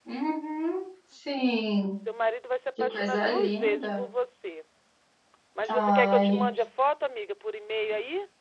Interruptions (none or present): present